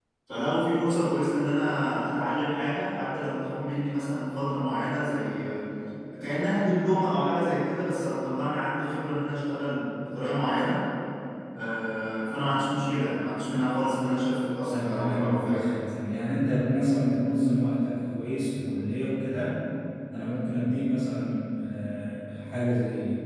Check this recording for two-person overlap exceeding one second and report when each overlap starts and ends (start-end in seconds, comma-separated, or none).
14.7-15.9